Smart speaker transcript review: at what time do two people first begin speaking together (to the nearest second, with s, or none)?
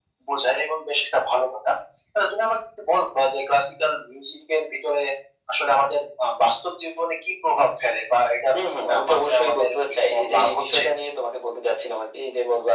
9 s